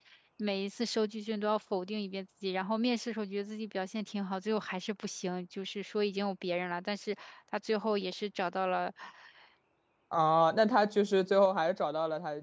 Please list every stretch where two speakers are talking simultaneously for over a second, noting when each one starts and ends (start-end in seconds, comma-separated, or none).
none